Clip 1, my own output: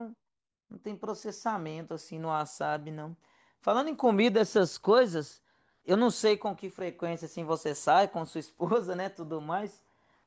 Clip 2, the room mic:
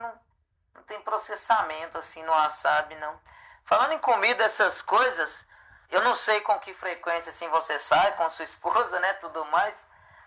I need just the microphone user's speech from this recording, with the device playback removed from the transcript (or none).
none